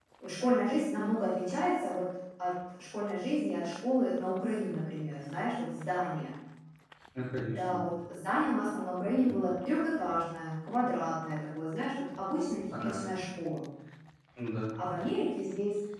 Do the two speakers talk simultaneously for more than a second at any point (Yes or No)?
No